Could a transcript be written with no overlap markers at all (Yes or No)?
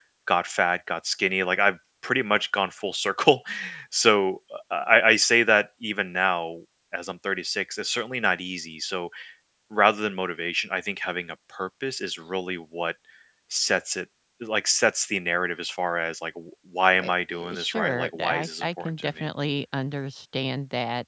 No